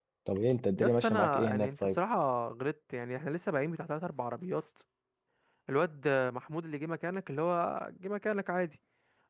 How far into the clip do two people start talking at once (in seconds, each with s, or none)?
0.8 s